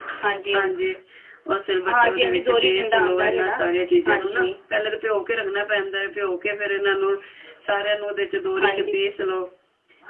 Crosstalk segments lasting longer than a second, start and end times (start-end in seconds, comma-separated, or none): 1.9-3.6